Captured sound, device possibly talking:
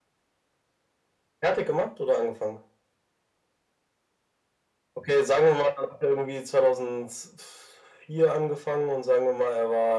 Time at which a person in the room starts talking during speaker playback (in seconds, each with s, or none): none